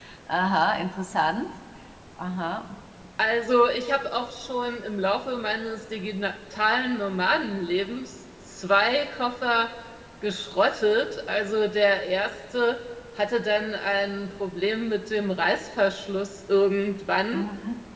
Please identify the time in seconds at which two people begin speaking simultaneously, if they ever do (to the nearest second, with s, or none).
none